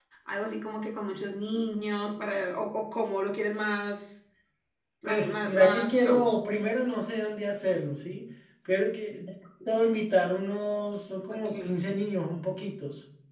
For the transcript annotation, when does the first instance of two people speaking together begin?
5.0 s

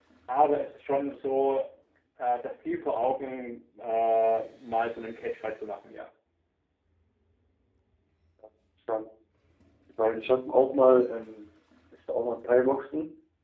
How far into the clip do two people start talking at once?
none

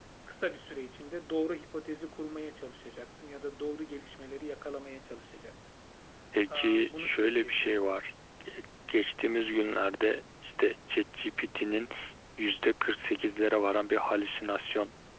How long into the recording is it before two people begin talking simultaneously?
6.5 s

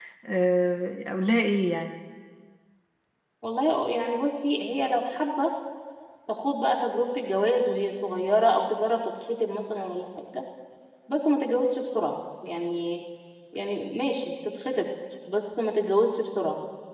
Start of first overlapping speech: none

